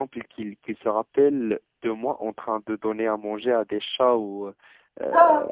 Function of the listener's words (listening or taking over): listening